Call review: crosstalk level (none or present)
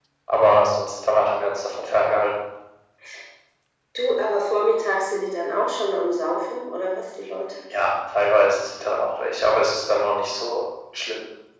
none